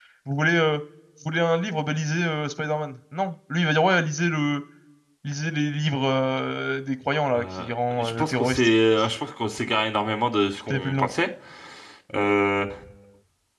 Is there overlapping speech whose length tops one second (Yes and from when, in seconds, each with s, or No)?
Yes, from 7.3 s